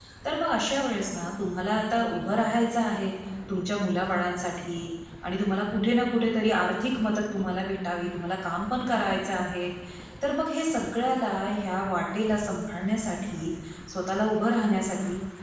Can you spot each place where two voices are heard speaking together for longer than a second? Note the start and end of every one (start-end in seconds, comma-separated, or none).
none